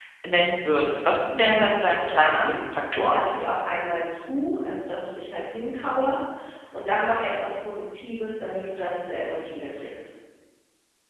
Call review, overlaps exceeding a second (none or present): present